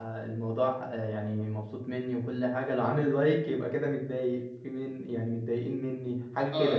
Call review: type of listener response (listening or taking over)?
taking over